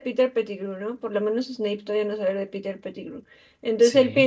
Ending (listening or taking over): listening